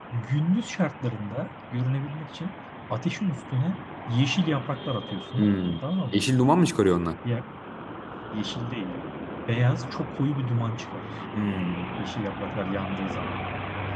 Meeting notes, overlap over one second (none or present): none